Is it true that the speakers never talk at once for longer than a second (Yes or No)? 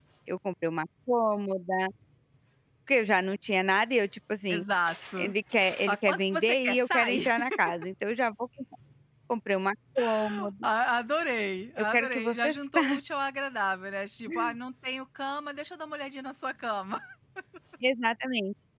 No